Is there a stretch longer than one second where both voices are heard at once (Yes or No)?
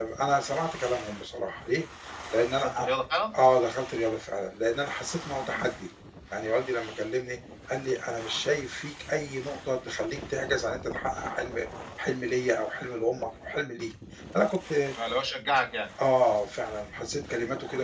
No